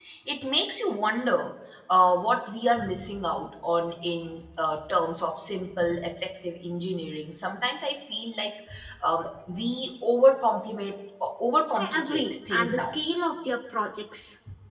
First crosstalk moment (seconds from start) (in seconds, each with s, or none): 11.8 s